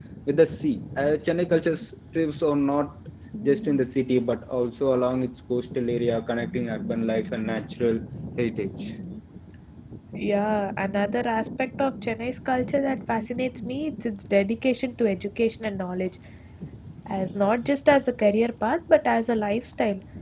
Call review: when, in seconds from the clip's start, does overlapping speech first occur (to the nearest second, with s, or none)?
none